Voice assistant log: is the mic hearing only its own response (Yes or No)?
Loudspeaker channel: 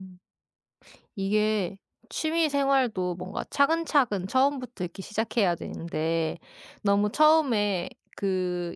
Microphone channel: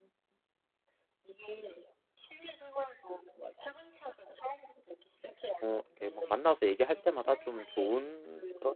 No